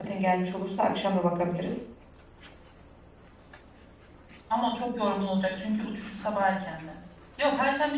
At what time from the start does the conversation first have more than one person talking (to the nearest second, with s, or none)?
none